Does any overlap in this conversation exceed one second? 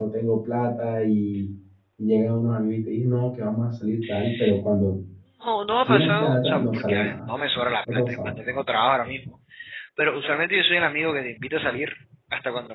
Yes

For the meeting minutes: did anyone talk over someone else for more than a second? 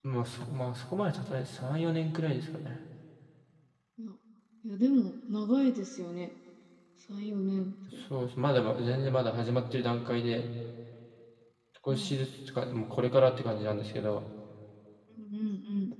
No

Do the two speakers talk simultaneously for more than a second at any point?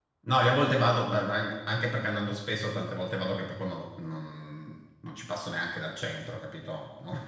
No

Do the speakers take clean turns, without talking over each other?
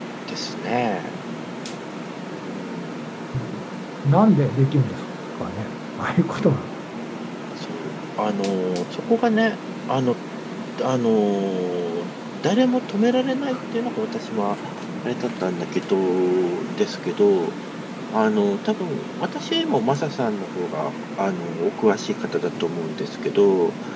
Yes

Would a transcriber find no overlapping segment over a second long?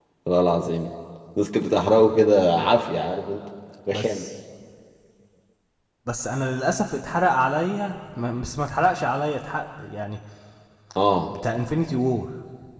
Yes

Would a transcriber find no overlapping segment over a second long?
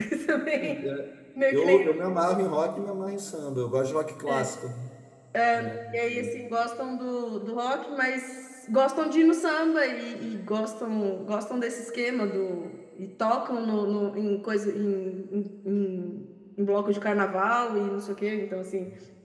Yes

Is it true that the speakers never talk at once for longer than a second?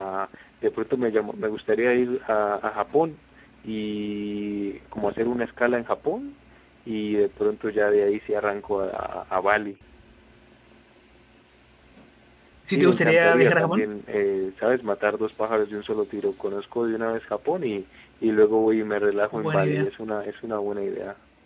No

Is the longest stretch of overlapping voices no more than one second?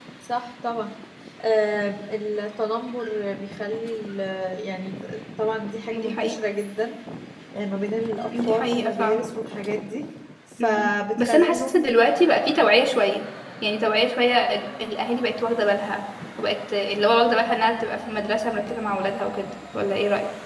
No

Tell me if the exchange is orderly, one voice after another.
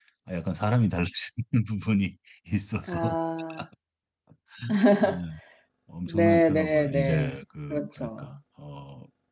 No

